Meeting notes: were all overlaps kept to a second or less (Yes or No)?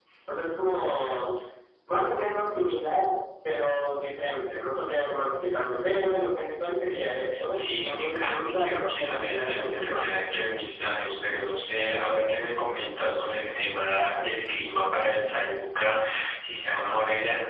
No